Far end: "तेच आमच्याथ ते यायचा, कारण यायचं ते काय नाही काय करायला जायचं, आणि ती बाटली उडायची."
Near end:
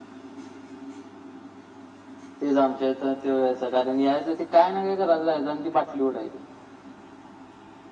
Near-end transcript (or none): none